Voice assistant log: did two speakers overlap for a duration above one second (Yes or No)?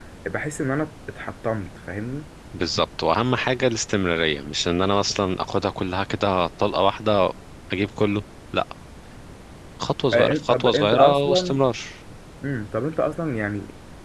Yes